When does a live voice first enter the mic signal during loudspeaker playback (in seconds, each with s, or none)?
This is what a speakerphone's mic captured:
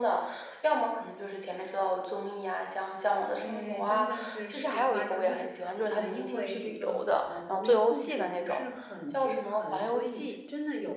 3.3 s